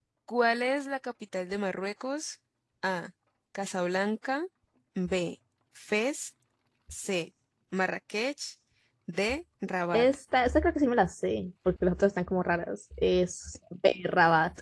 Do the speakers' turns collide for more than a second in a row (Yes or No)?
No